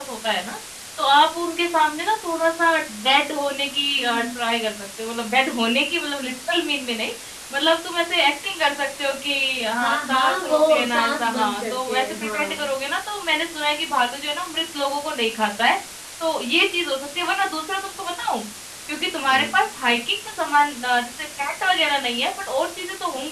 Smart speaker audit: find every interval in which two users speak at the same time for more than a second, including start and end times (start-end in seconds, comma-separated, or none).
9.8-12.7